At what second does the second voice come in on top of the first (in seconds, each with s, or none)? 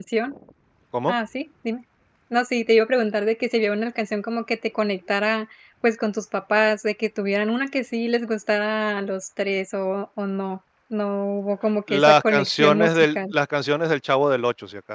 11.9 s